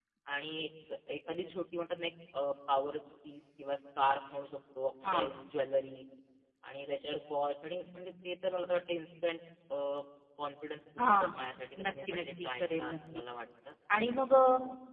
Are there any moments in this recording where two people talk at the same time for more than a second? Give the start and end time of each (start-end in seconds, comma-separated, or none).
11.8-13.2